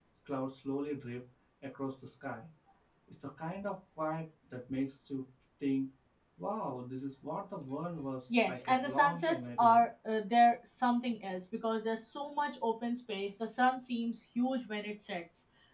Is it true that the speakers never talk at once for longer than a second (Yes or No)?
No